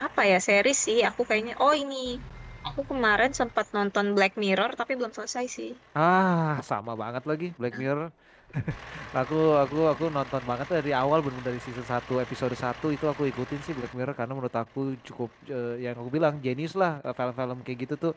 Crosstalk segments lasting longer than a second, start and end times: none

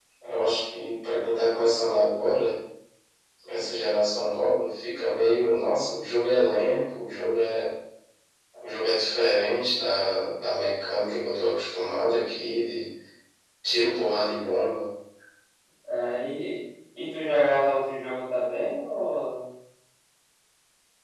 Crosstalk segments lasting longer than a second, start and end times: none

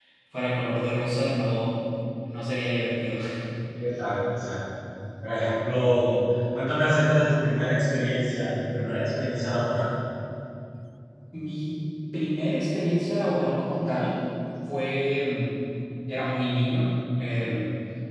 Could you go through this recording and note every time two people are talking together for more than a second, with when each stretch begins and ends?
none

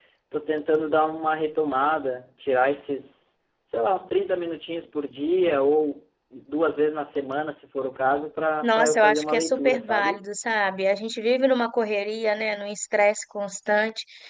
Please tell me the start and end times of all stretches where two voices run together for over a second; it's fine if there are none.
8.6-10.2

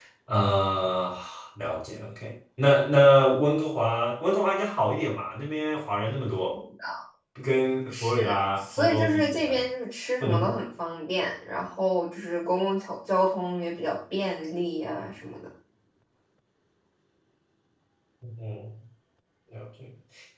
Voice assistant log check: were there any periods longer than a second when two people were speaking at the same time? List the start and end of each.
7.9-9.6

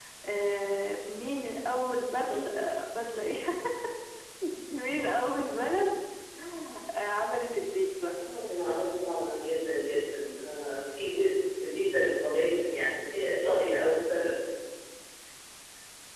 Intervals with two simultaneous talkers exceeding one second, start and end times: none

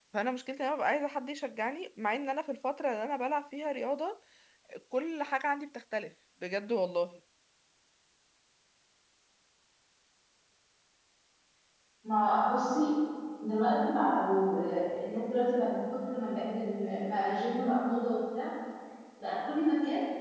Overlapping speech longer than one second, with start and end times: none

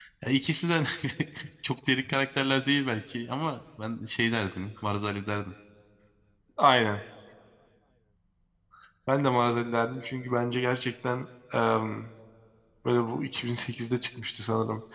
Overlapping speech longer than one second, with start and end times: none

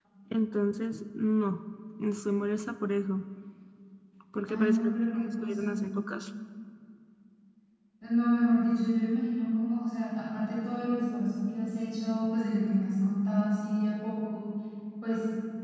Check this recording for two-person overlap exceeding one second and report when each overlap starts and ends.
4.5-5.8

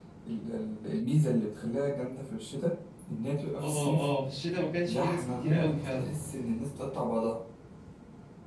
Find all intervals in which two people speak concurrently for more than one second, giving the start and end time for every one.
4.8-6.1

